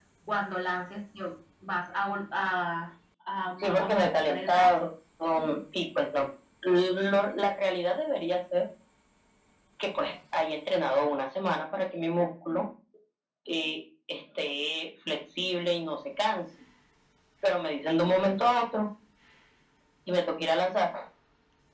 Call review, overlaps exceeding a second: present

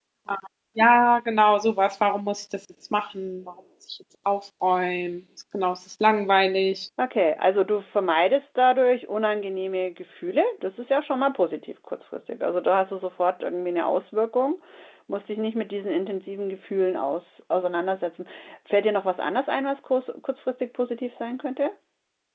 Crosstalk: none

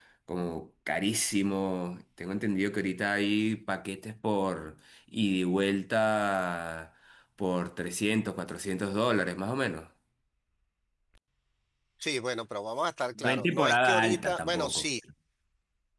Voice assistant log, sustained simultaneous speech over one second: present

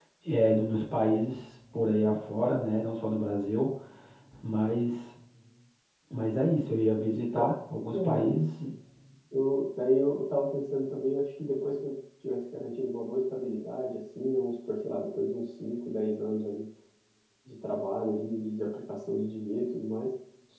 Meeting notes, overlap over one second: none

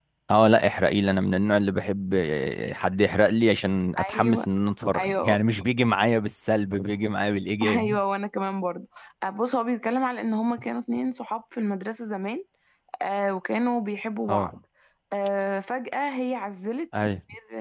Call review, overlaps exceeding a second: none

